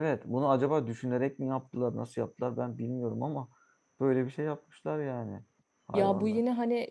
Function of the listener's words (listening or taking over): taking over